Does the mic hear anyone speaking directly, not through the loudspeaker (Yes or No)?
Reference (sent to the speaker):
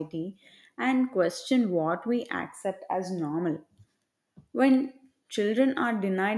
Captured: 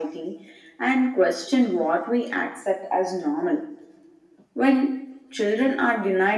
No